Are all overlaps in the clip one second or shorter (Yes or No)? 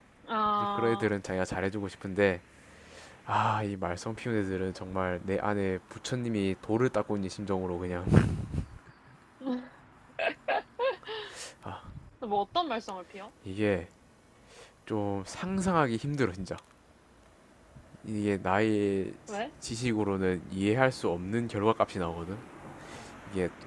Yes